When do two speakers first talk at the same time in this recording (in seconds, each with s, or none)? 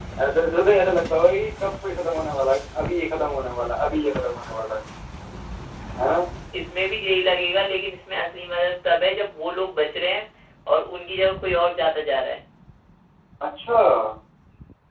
none